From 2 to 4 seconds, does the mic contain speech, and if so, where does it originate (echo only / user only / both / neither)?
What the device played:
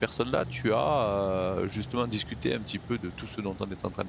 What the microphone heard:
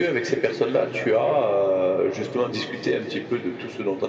echo only